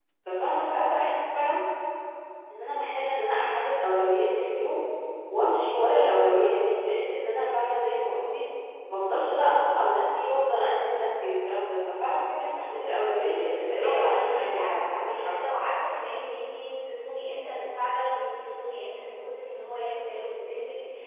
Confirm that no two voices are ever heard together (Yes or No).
No